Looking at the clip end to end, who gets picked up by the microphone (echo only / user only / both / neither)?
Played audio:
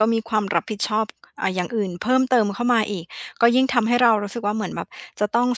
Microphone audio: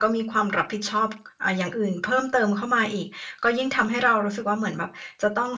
echo only